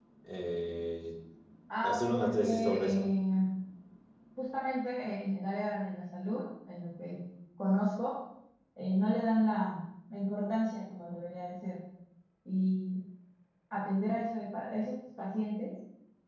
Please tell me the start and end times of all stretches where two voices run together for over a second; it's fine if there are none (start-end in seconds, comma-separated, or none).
1.8-3.1